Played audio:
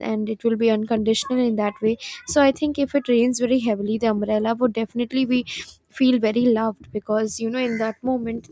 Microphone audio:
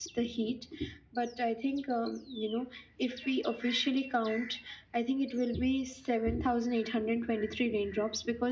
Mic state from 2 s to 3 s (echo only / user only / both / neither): user only